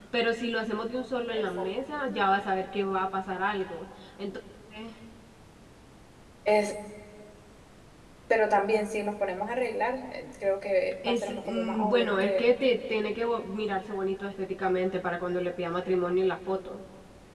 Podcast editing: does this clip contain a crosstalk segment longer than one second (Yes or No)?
Yes